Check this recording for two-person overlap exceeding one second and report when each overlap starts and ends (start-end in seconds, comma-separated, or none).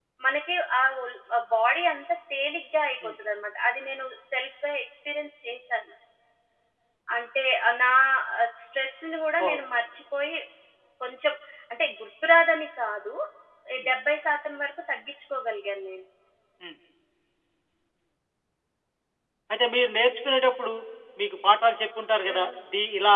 none